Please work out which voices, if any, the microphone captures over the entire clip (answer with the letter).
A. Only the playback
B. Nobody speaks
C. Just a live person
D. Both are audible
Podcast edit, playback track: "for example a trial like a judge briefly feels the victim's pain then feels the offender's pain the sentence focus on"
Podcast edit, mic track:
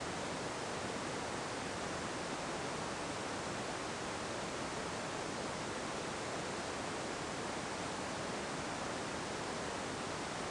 B